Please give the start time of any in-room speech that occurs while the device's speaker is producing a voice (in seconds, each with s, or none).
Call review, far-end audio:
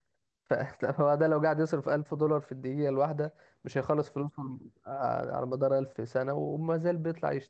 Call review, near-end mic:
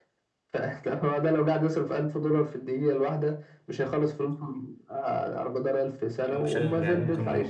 6.2 s